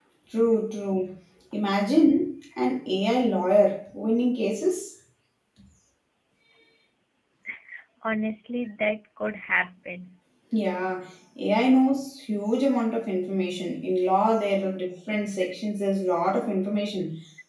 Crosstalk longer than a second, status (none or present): none